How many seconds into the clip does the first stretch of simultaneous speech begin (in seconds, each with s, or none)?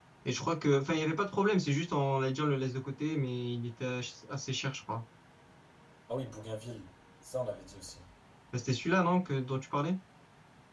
none